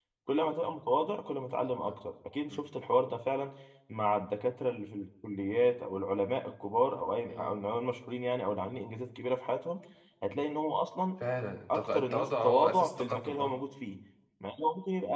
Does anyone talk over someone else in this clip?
Yes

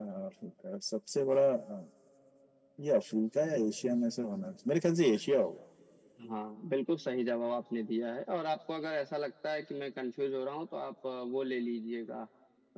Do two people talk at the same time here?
No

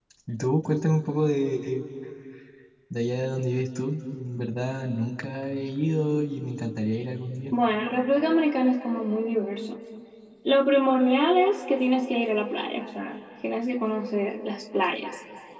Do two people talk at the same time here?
No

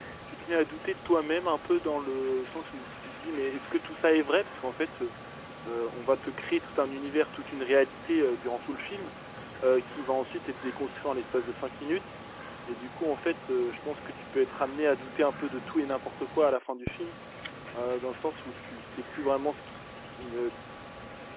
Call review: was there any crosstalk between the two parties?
No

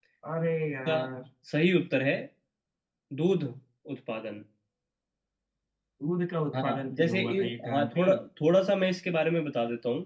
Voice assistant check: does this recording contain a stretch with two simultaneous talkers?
Yes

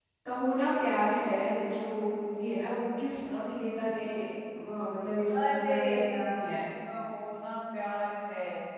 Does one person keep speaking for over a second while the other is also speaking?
Yes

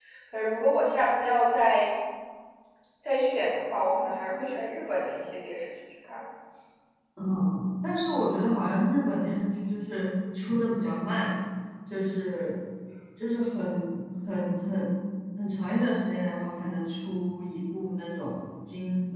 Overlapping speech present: No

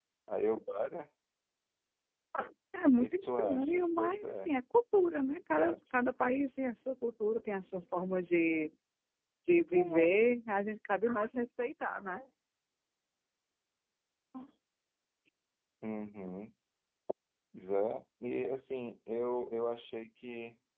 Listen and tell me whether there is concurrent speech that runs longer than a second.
Yes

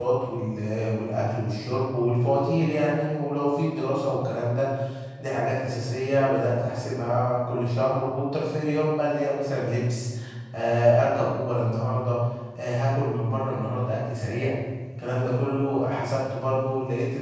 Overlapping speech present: No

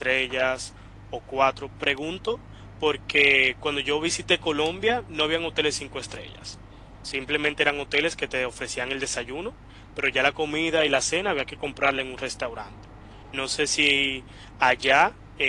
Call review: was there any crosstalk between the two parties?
No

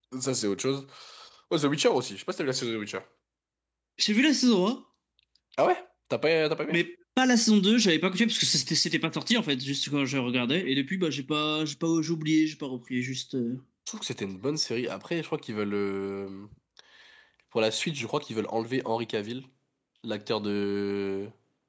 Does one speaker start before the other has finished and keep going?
No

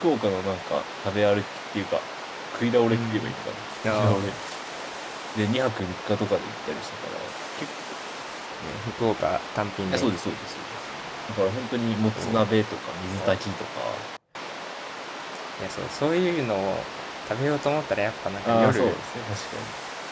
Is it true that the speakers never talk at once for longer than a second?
Yes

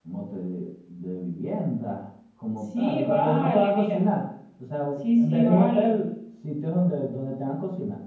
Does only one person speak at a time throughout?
No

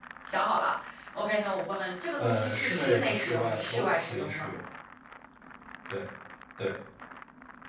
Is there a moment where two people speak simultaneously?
Yes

